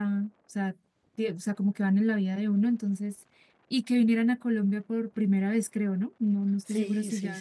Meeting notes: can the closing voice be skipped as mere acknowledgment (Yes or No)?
No